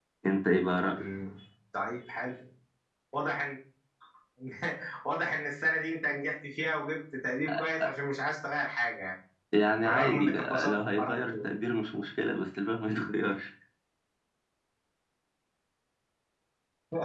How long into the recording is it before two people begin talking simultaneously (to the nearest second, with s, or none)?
10 s